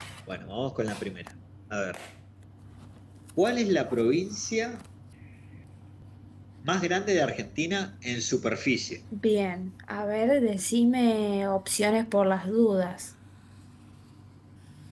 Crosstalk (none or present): none